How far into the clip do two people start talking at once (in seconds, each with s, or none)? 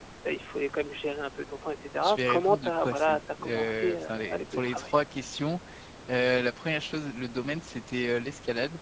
2.0 s